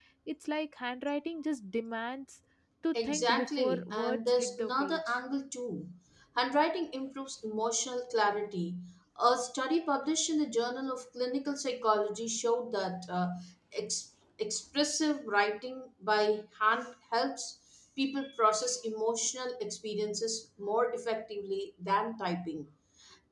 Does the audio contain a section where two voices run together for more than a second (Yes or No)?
Yes